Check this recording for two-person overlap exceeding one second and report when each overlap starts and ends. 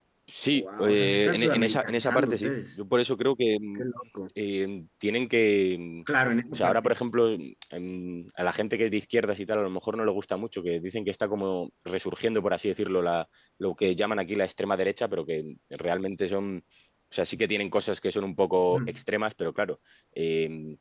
0.5-2.5

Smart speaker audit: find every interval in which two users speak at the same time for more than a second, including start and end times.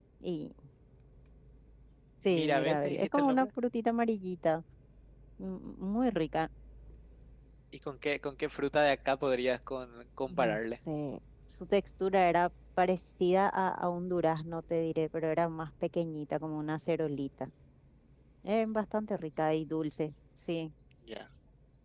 2.3-3.5

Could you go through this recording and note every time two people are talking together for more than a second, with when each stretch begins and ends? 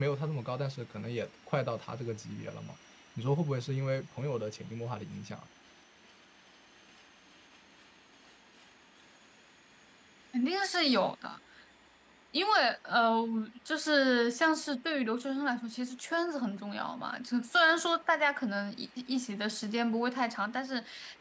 none

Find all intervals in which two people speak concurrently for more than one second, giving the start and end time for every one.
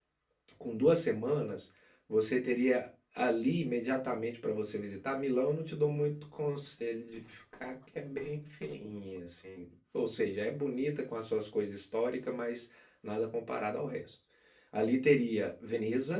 none

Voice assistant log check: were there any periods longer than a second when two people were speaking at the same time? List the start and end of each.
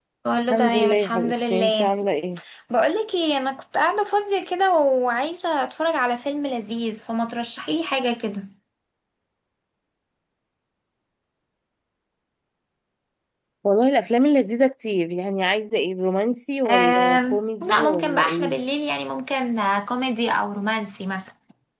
0.5-1.9, 16.7-18.6

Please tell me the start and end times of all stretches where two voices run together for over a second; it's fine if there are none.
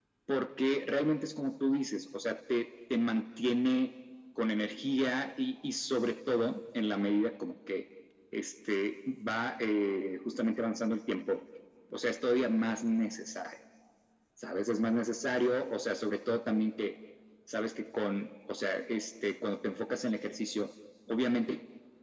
none

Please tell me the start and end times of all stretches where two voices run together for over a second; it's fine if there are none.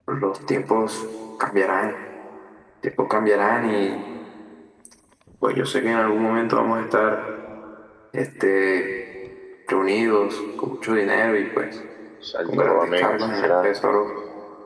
12.4-13.7

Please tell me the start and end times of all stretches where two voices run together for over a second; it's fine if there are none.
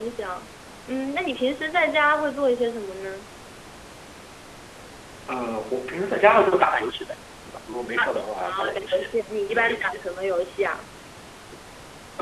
8.5-10.0

